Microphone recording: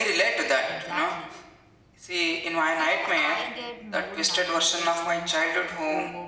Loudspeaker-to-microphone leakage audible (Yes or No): Yes